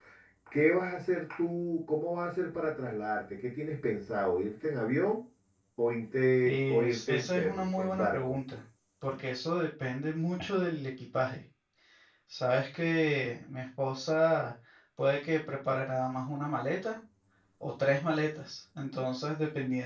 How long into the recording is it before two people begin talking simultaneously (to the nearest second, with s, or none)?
6 s